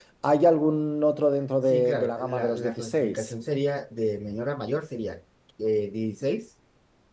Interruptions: present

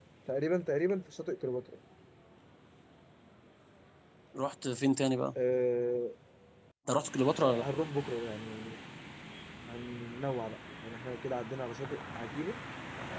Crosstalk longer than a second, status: none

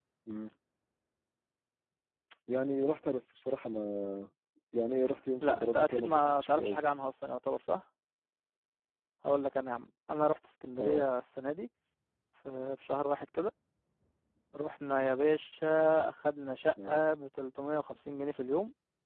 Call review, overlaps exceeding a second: present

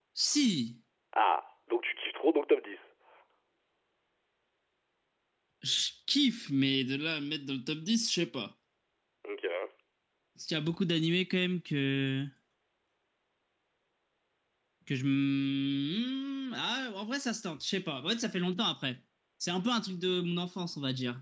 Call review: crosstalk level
none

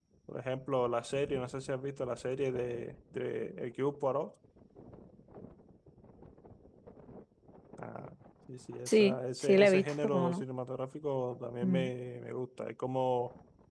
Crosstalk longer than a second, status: present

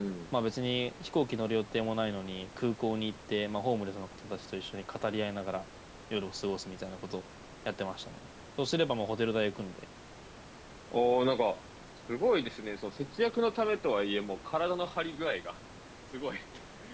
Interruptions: none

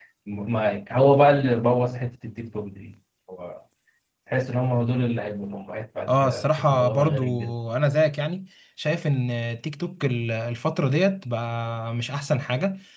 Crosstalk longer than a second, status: present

